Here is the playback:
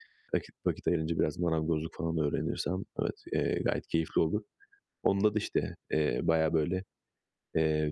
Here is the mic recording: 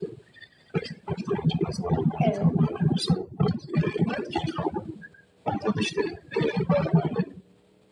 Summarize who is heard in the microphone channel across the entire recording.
both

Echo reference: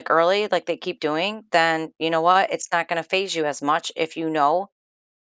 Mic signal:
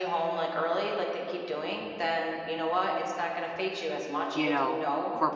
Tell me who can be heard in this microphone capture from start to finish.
both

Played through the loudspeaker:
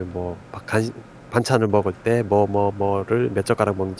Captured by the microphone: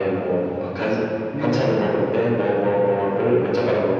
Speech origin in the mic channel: both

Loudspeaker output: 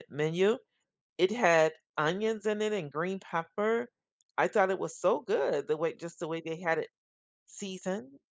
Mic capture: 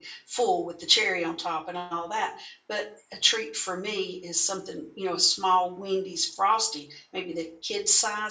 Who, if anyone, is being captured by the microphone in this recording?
user only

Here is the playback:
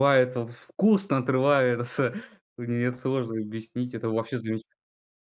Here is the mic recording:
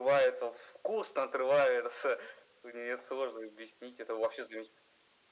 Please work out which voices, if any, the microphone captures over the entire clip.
echo only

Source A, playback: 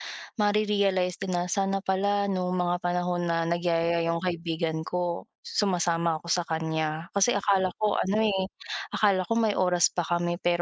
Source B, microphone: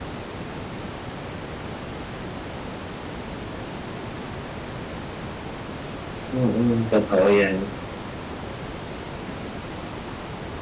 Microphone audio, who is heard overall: user only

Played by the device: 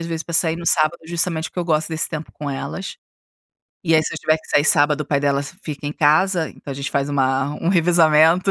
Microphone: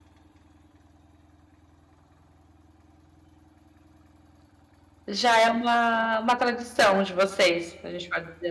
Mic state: user only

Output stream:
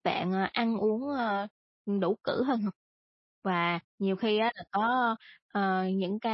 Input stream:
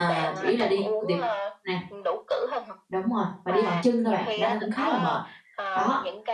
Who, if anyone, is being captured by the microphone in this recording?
both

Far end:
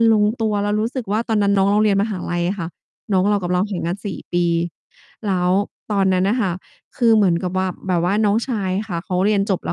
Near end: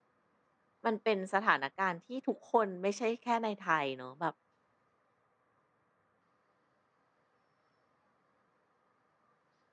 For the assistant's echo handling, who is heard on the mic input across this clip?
user only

